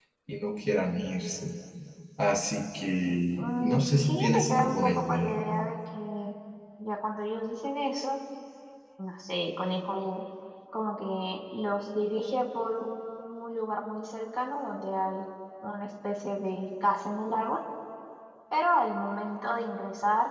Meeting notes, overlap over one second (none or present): present